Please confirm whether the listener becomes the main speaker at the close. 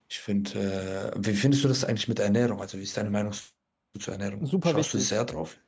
Yes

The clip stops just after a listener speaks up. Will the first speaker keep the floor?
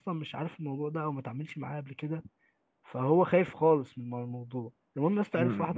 No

